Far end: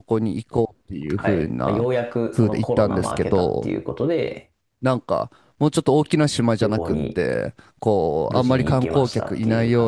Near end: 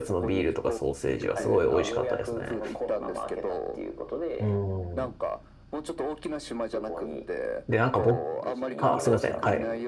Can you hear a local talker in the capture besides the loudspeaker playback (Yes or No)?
Yes